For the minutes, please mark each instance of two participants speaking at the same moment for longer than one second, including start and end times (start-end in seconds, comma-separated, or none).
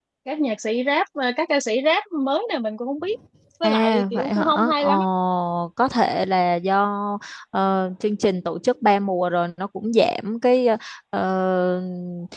3.6-4.9